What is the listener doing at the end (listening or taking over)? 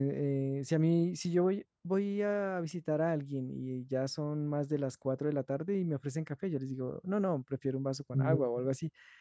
listening